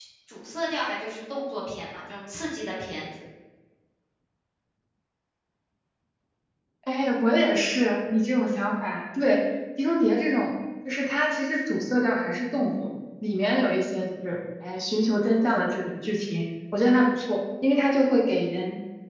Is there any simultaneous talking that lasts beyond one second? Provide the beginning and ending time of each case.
none

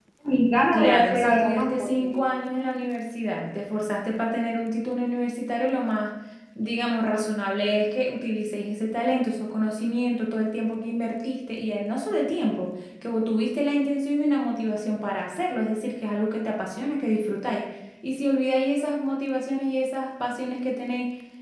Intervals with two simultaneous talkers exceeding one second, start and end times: 0.7-2.3

